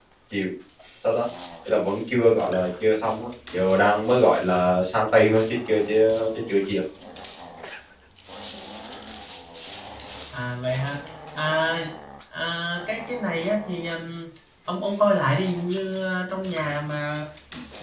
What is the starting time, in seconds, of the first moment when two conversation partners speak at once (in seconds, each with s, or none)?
none